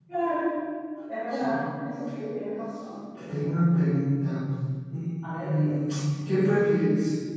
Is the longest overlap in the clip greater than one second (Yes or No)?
No